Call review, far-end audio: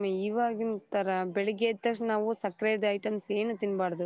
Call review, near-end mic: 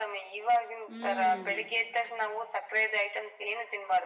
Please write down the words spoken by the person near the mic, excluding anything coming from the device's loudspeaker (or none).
ಹ್ಮ್